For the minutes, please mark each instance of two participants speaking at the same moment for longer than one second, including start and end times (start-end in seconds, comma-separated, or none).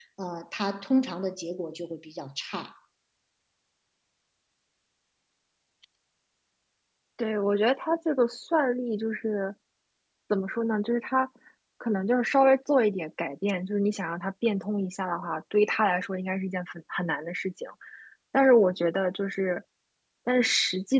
none